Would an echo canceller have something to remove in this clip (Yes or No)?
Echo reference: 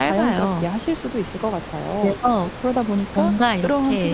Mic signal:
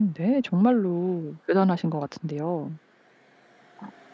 No